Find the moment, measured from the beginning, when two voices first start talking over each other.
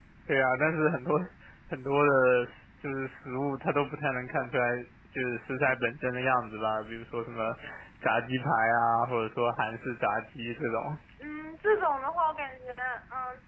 none

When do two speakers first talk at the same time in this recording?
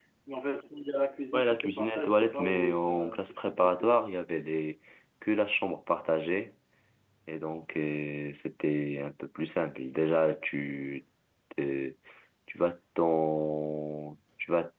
1.3 s

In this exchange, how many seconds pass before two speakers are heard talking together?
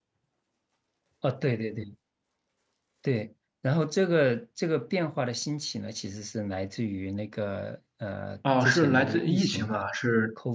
8.4 s

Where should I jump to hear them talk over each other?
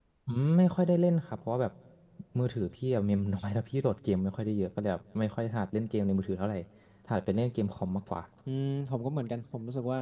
none

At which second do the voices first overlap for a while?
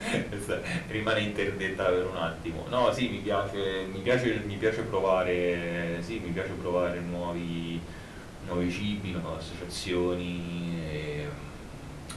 none

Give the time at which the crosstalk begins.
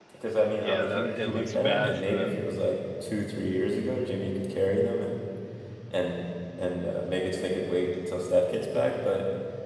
0.6 s

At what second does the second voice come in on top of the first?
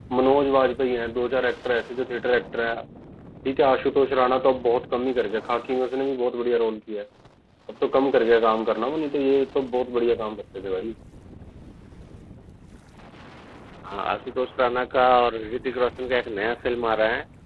none

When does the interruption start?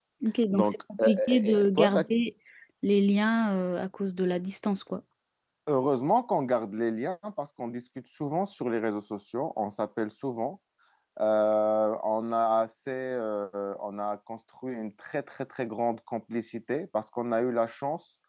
0.5 s

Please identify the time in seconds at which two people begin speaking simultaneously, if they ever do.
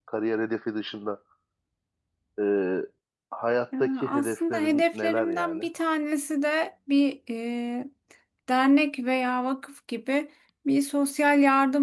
3.8 s

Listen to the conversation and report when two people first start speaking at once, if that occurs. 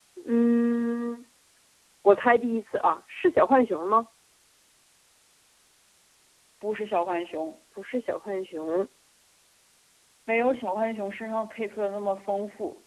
none

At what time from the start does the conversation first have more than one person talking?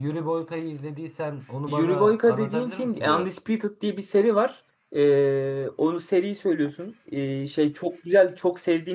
1.7 s

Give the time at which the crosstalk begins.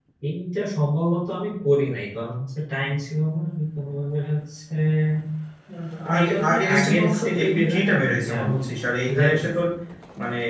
6.1 s

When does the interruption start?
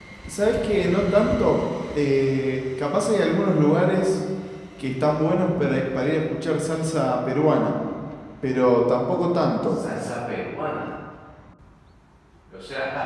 none

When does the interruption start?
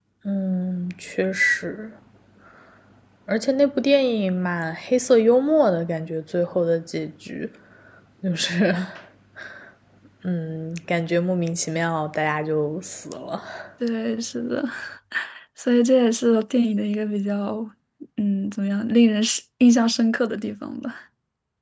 none

